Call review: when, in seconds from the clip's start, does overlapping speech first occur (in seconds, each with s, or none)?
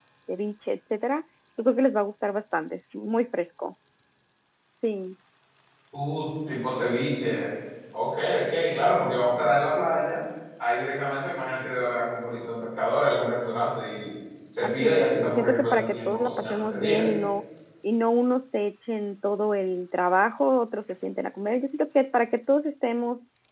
14.6 s